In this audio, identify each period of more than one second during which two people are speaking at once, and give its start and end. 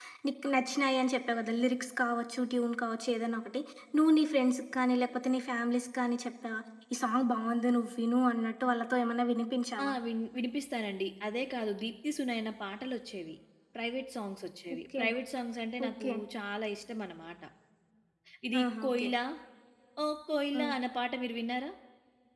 none

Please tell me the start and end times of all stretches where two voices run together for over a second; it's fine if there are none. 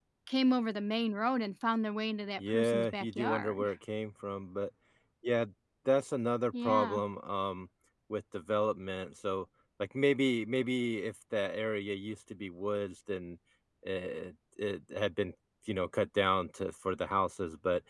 2.4-3.6

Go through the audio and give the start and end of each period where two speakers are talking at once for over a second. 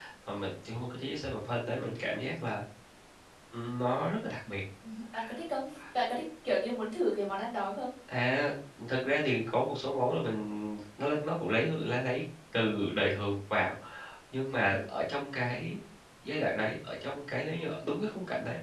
none

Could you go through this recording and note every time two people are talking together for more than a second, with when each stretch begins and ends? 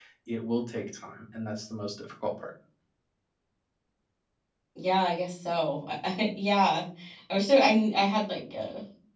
none

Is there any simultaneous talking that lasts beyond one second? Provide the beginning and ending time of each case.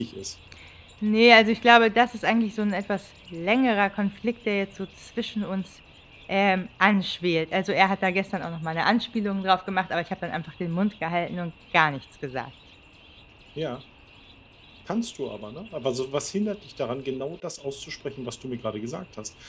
none

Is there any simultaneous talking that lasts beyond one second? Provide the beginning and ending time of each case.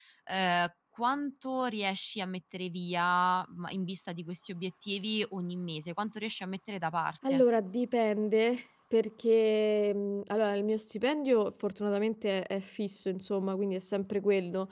none

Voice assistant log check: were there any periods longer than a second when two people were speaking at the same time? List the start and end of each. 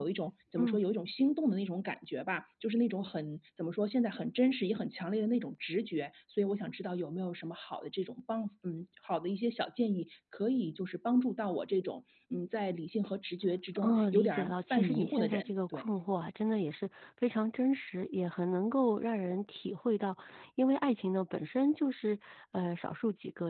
13.8-15.8

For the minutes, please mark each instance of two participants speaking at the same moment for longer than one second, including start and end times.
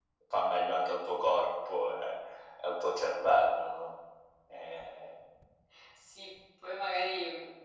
none

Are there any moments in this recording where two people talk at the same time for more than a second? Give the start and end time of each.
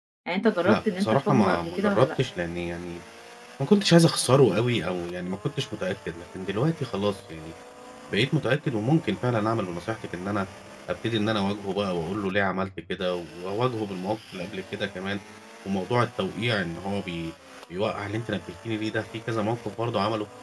0.7-2.1

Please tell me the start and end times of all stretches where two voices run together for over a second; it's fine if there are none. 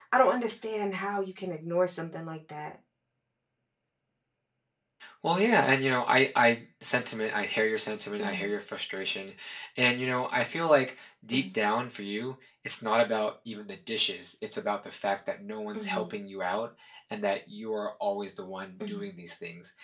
none

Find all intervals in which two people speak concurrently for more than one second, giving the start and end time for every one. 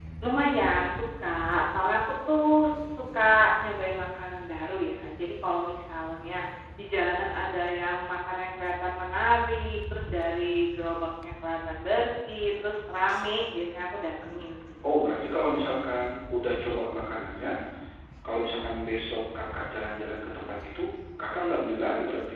none

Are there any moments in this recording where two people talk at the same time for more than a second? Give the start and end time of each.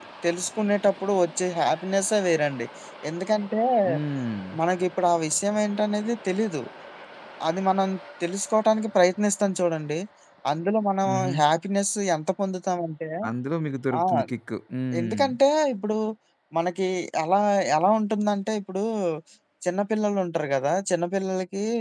none

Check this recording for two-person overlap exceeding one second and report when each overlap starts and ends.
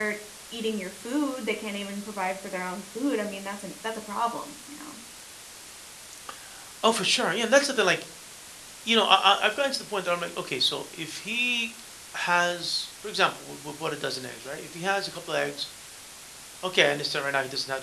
none

